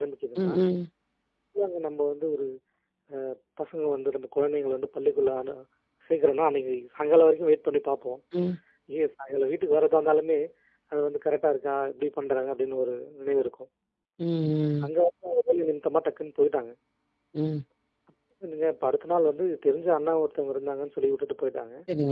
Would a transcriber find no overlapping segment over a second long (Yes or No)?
Yes